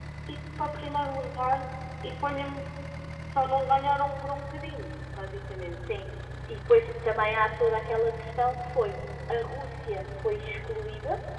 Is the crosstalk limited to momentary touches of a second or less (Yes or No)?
Yes